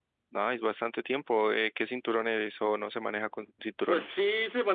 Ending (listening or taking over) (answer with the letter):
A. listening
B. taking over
B